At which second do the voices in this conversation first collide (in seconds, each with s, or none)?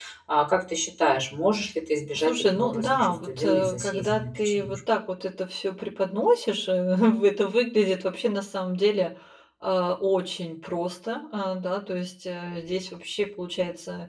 2.1 s